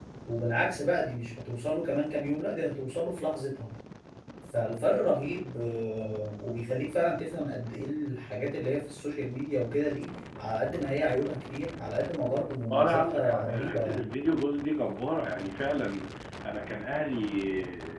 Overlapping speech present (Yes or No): Yes